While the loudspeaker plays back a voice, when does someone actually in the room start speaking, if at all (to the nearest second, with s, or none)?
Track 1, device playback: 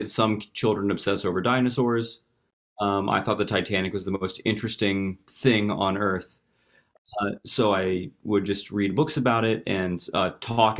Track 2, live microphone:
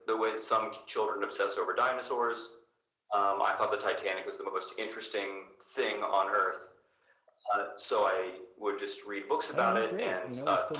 10 s